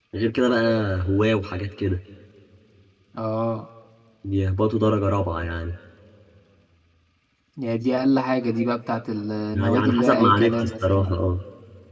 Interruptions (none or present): present